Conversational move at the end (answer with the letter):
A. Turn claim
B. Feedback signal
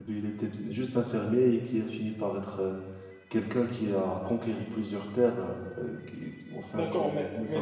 A